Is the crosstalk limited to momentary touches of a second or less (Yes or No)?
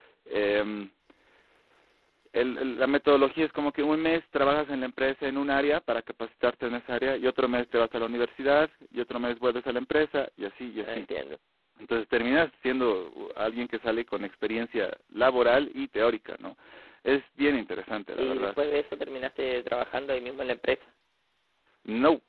Yes